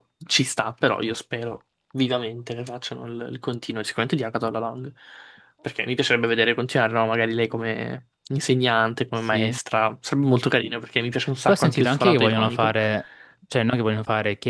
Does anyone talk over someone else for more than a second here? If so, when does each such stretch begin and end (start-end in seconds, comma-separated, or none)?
11.5-12.8